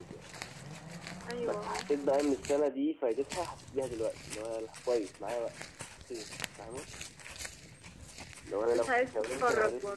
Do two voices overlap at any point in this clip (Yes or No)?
Yes